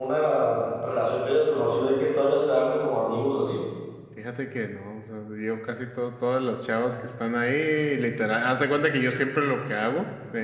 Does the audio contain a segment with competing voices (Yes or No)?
No